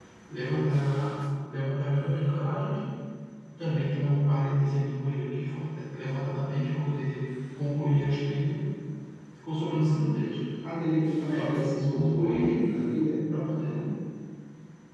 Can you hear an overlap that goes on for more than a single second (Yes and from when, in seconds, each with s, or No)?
Yes, from 11.3 s